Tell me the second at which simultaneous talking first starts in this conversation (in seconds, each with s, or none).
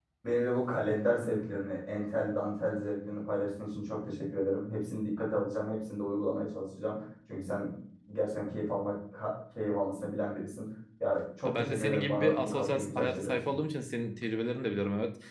11.4 s